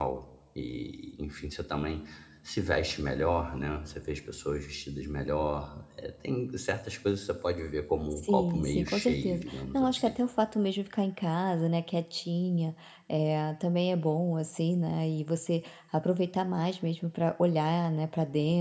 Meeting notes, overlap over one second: present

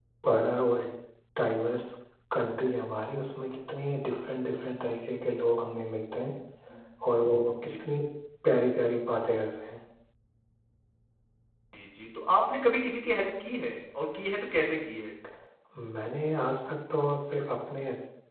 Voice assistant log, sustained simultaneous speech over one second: none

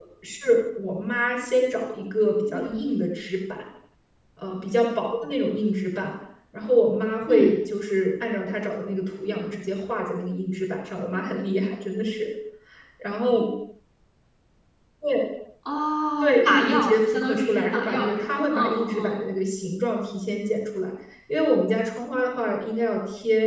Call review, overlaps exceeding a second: present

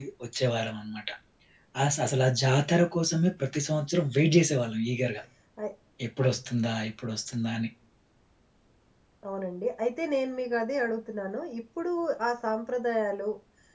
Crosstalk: none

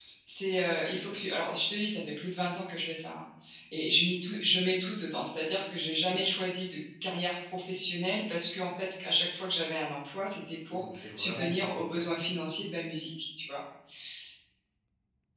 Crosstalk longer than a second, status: present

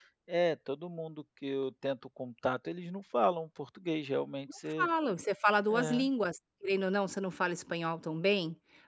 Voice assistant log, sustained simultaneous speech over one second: none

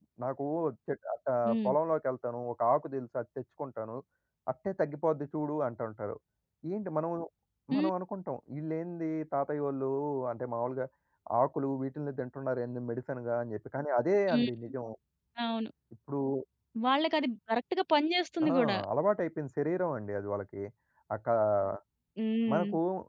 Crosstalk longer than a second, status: none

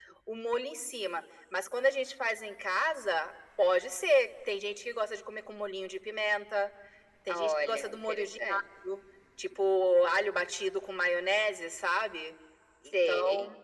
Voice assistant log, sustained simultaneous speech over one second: present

